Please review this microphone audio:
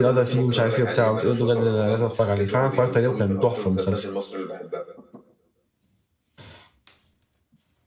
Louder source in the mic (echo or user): user